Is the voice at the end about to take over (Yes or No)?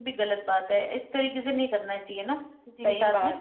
Yes